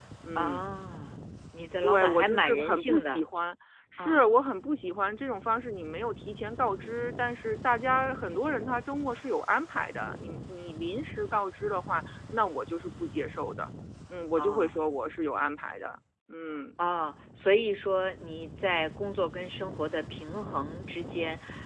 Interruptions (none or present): present